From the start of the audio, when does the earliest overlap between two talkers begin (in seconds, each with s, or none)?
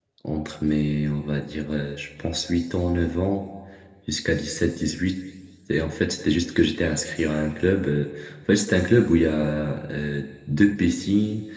none